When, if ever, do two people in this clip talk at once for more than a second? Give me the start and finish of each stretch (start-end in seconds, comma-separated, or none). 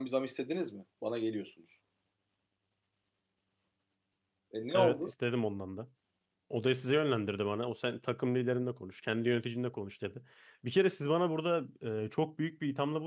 none